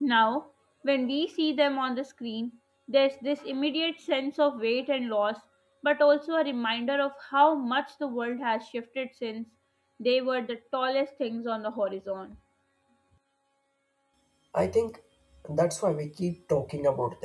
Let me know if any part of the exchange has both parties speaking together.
No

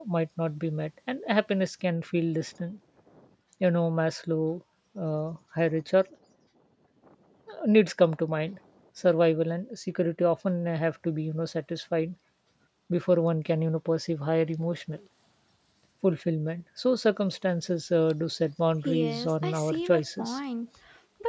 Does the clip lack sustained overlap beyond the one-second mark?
No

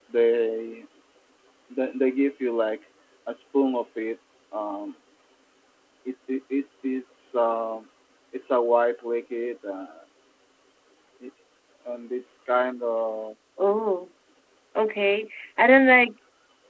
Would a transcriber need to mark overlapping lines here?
No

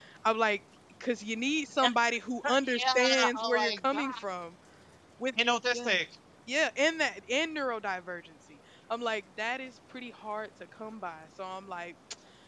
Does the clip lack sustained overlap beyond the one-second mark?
No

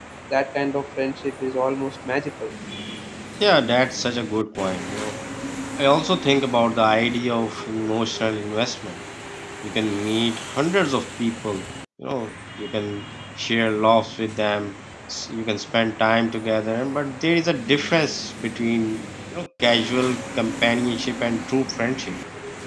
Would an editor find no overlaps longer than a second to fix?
Yes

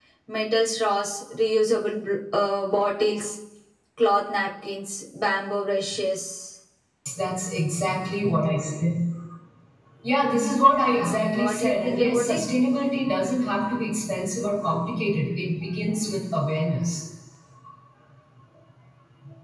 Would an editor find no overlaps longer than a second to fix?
No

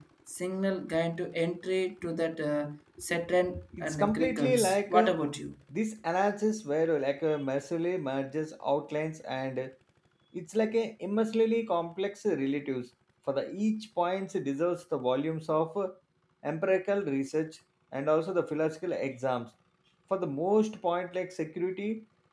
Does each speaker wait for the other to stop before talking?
No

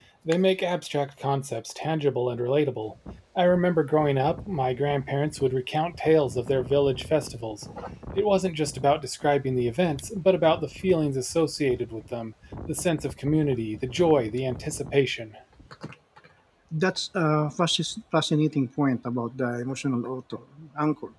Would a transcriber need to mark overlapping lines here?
No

